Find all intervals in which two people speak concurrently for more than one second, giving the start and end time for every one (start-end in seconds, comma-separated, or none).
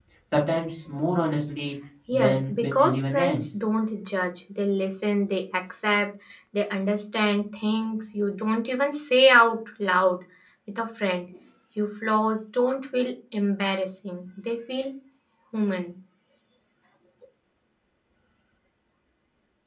2.1-3.5